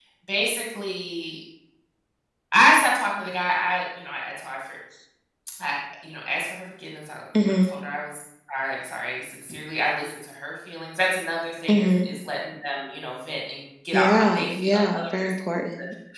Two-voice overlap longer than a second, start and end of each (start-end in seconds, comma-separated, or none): 13.9-15.6